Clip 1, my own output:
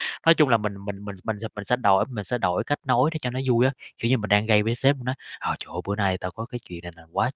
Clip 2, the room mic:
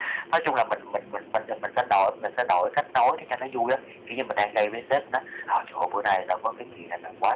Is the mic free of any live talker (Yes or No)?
Yes